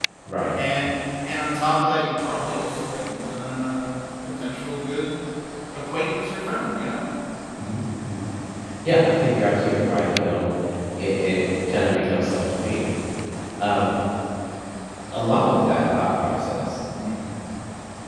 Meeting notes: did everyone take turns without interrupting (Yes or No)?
Yes